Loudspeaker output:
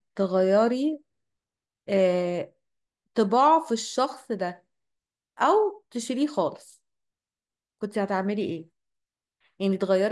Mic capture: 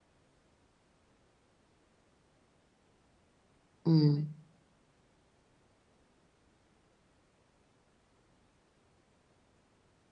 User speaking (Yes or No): Yes